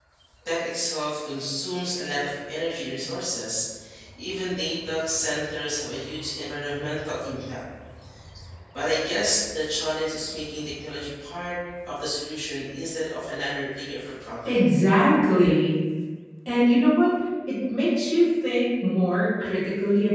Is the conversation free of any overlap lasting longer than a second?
Yes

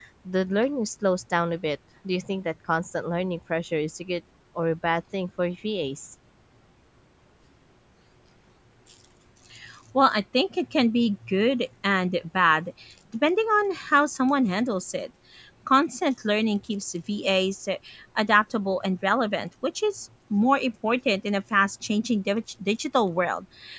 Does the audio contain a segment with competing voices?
No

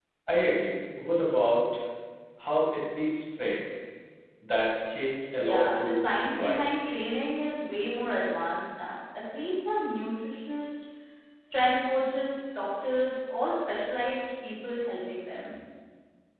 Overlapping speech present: Yes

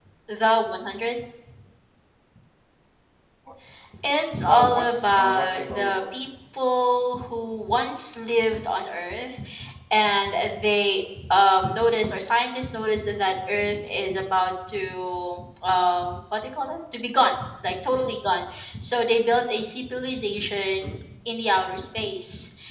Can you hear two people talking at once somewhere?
Yes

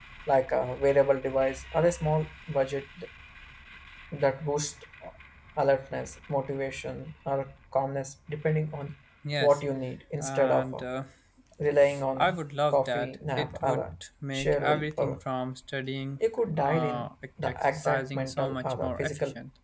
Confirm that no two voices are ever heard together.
No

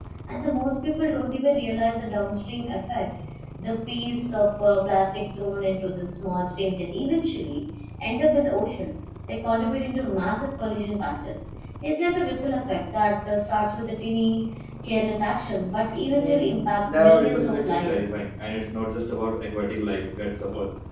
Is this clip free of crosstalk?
No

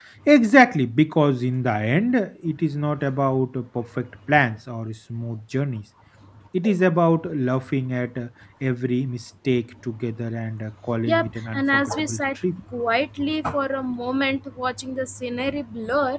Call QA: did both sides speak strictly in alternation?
No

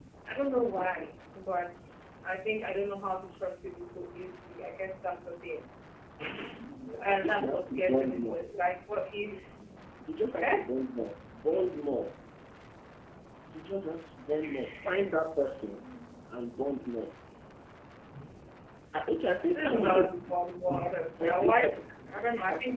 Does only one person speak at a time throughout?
No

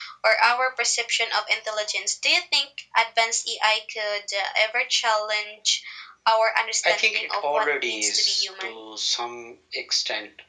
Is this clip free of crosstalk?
No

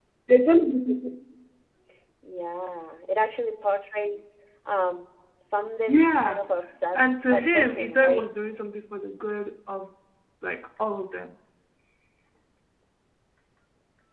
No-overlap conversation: No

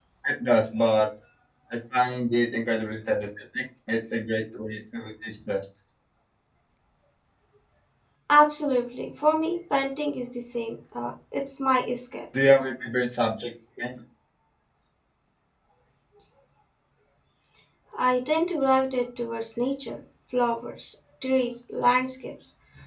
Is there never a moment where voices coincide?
Yes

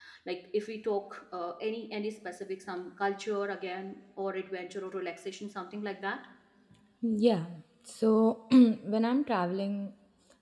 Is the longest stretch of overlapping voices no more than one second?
Yes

